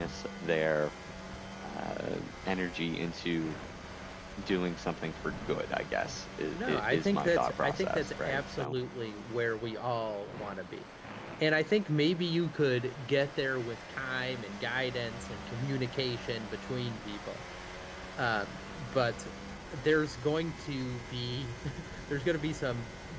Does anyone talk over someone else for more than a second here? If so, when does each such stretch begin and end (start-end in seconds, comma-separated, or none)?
6.5-8.7